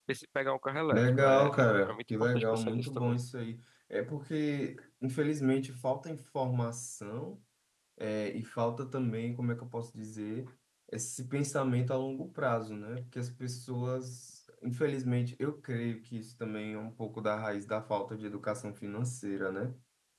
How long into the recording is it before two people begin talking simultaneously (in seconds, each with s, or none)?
0.9 s